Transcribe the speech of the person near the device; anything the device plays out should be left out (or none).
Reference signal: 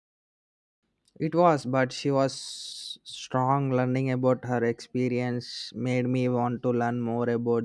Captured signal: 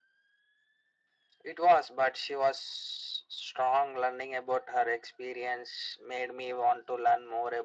none